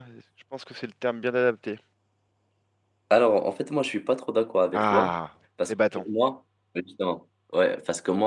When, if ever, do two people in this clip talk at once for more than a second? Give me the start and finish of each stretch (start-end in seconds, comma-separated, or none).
none